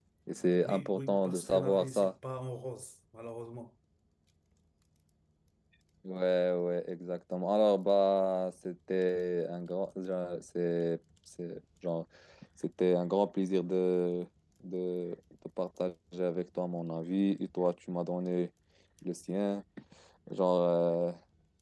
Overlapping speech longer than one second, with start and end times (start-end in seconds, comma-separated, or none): 0.6-2.1